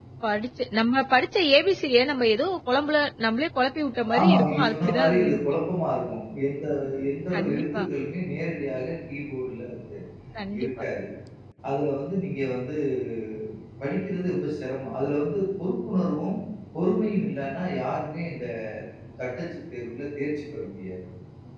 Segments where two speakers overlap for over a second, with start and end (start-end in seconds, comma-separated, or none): 4.2-5.4